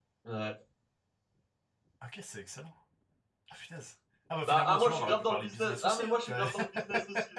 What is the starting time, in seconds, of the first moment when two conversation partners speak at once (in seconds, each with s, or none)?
4.5 s